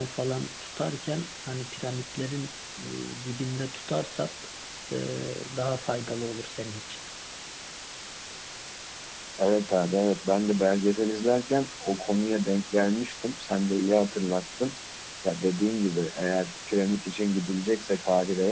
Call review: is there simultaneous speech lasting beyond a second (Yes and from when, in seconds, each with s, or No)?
No